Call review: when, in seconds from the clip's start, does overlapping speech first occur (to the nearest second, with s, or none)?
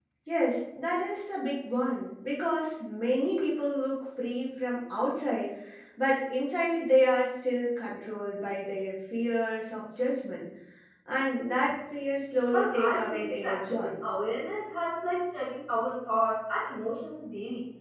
13 s